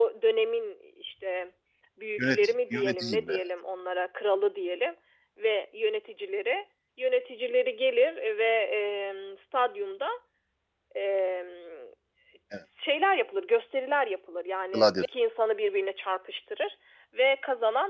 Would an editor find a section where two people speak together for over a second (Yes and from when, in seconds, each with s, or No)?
Yes, from 2.2 s